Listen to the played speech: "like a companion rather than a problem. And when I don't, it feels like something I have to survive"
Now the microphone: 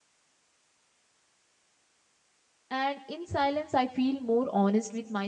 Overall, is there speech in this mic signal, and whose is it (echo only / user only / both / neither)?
user only